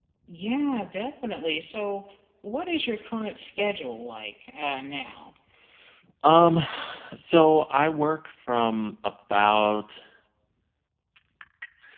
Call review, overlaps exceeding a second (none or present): none